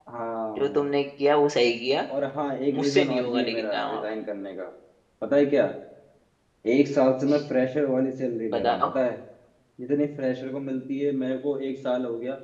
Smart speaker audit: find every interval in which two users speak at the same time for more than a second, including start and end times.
2.7-4.0

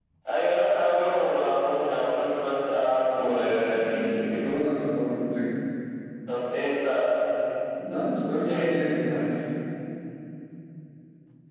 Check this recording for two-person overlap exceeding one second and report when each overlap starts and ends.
3.2-4.4

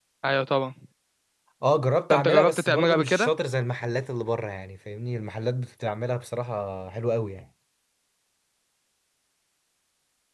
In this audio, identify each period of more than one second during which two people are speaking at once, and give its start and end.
2.1-3.3

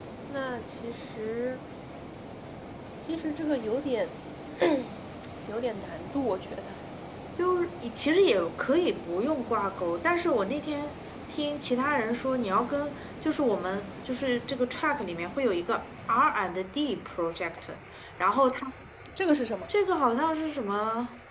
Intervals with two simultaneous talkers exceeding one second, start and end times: none

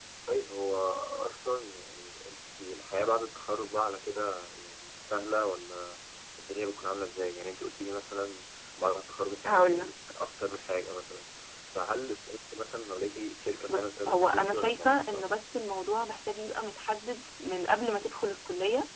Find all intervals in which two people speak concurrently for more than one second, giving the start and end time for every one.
13.7-15.3

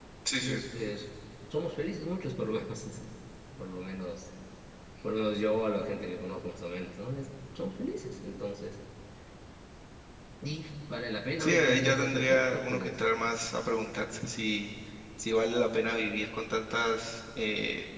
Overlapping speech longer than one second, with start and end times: 11.4-12.9

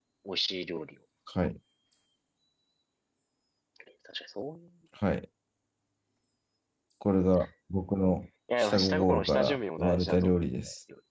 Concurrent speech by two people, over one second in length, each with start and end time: 8.6-10.4

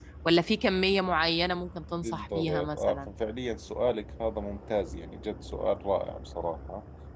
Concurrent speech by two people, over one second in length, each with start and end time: 1.9-3.1

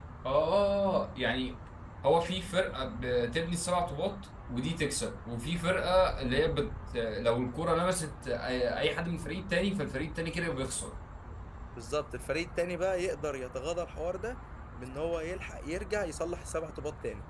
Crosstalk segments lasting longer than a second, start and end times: none

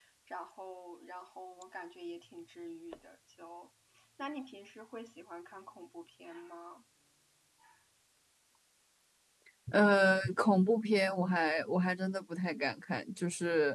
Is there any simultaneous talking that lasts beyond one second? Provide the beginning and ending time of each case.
none

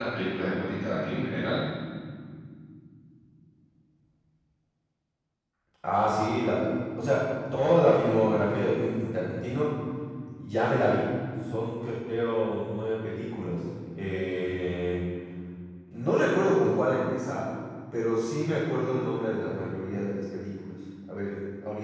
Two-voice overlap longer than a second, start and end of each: none

